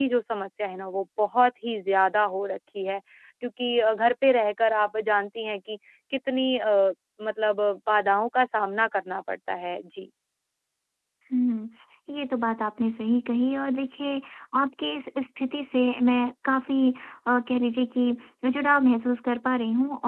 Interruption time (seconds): none

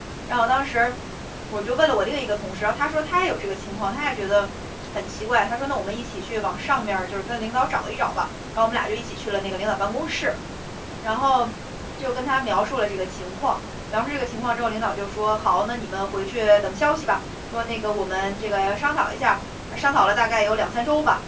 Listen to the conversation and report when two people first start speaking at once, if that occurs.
none

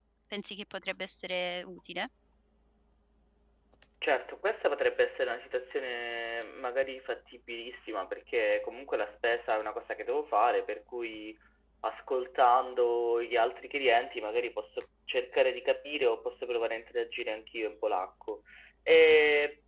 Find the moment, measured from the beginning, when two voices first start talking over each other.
none

